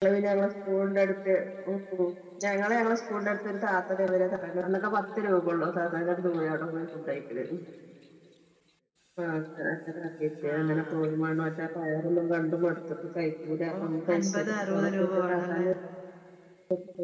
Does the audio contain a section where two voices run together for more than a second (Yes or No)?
Yes